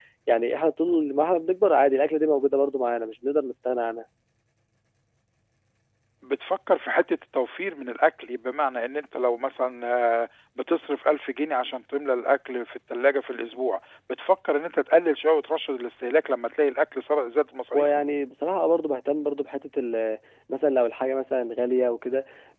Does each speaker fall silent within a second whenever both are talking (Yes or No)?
Yes